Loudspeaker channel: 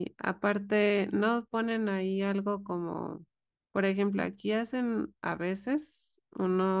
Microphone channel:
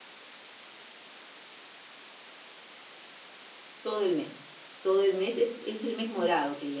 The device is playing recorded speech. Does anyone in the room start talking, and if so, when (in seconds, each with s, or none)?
3.8 s